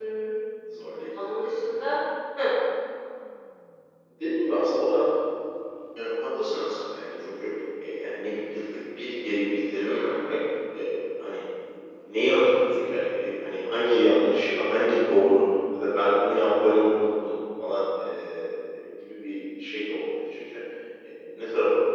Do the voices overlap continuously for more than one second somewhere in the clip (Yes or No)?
No